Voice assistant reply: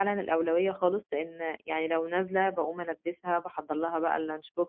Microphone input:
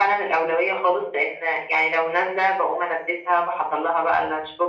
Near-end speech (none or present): none